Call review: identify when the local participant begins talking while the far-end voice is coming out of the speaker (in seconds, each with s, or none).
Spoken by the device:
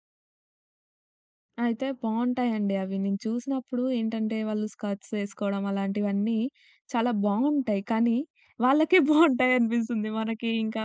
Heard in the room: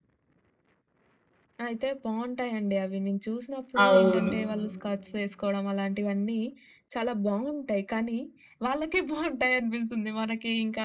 3.8 s